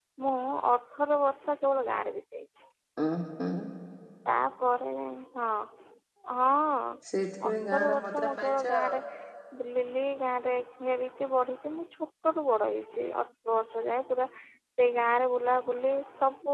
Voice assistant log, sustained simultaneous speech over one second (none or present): present